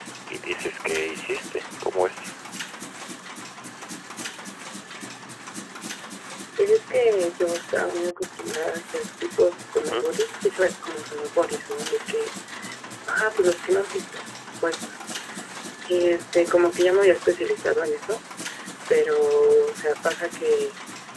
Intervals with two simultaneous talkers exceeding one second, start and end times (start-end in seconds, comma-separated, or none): none